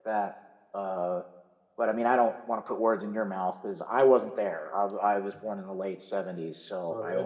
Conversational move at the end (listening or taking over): taking over